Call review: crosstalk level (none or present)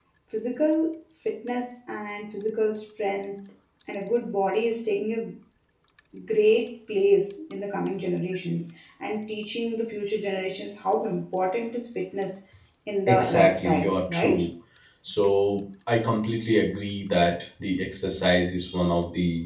present